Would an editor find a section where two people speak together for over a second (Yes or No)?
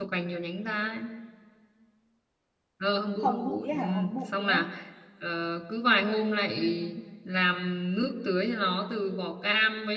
Yes